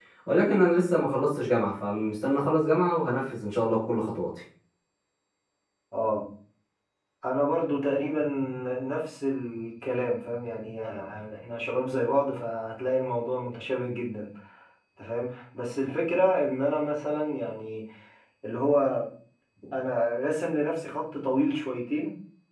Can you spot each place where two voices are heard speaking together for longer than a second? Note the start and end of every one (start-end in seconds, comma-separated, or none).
none